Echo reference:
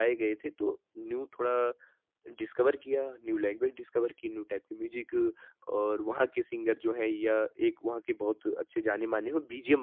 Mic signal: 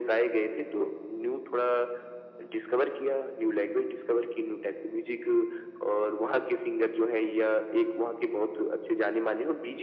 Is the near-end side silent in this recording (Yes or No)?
Yes